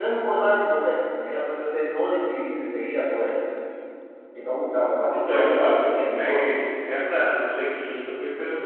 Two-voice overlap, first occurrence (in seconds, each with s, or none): 5.1 s